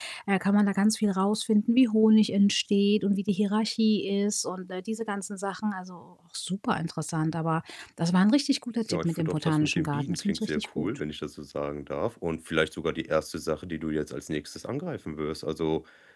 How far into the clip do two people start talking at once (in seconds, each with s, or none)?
8.9 s